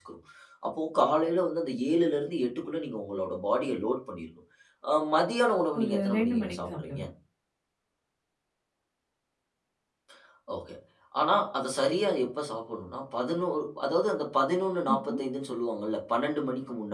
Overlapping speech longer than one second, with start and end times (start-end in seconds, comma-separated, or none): 5.8-7.0